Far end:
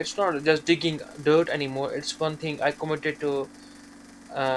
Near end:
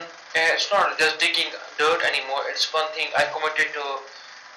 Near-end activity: none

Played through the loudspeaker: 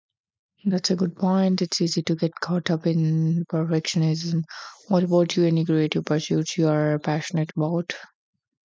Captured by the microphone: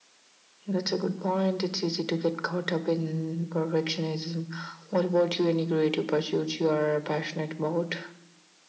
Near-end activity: none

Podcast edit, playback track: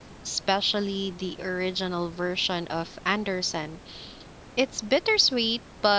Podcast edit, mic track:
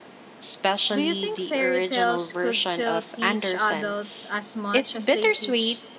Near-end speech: present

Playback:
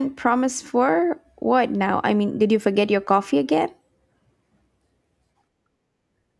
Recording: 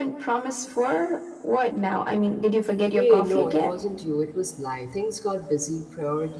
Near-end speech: present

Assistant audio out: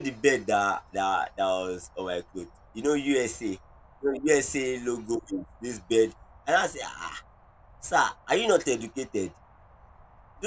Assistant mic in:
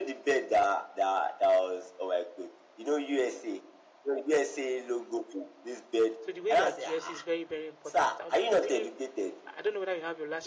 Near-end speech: present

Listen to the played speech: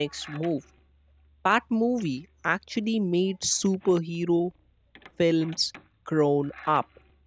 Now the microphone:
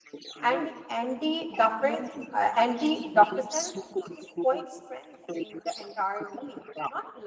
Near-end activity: present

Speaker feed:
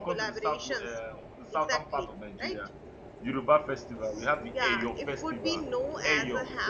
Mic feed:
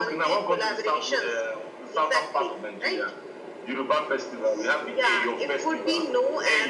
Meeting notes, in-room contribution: none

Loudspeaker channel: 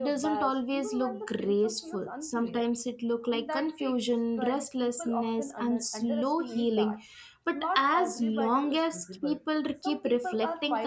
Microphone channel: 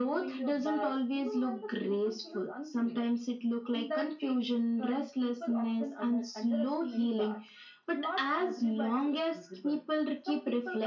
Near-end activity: none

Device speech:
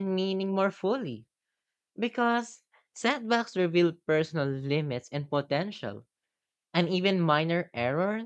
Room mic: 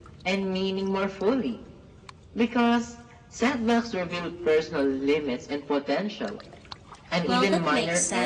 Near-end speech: present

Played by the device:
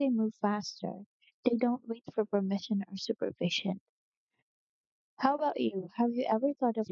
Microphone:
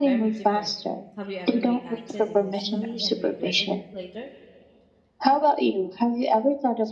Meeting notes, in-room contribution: present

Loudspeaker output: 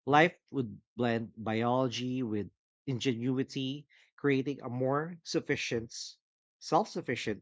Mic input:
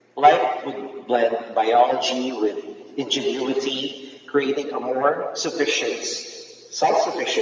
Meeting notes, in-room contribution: none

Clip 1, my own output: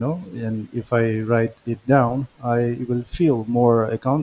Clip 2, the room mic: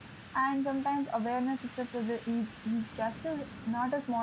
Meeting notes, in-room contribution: present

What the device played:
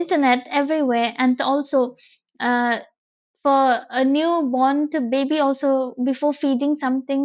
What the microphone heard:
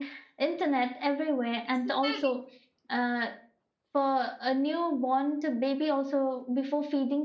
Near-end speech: present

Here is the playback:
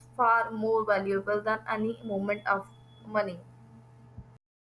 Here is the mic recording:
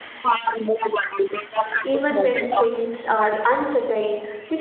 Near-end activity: present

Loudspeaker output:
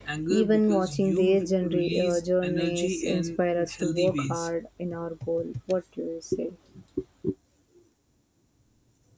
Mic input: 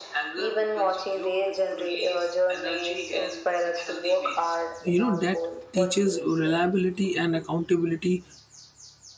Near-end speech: present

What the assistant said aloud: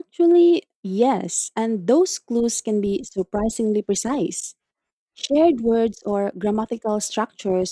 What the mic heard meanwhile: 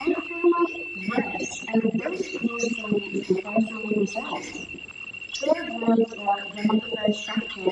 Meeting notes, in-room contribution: none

